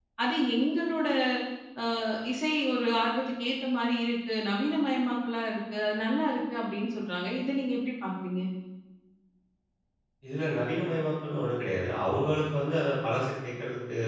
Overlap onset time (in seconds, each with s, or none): none